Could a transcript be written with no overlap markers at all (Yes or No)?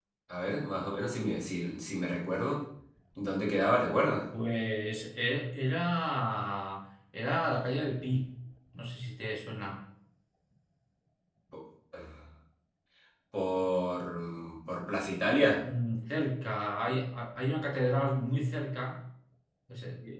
Yes